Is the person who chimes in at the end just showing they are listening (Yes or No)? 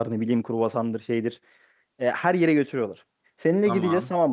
Yes